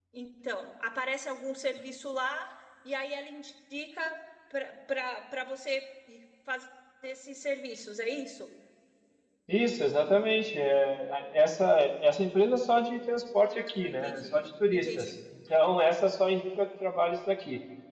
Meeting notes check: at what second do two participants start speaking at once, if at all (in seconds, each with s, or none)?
13.6 s